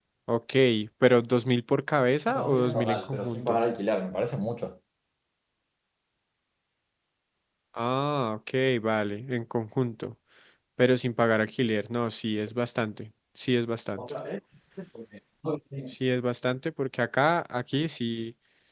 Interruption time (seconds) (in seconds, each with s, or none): 2.3 s